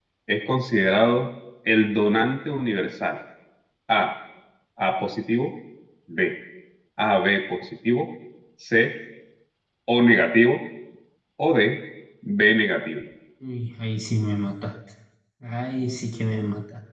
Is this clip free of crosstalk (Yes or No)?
Yes